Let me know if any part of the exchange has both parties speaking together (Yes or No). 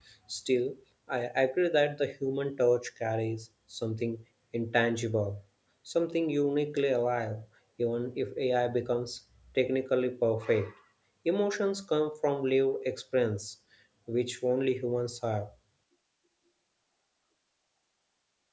No